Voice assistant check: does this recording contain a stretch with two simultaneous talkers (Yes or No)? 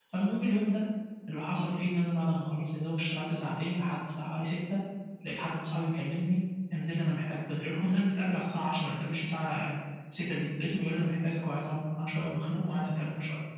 No